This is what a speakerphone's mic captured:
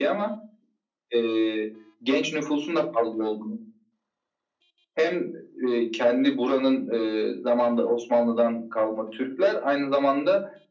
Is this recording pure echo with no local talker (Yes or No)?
Yes